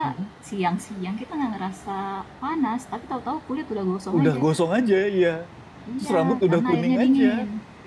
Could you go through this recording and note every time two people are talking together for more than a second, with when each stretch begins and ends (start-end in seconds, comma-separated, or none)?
6.0-7.3